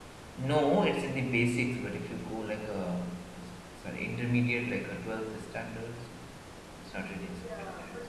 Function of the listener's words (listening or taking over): taking over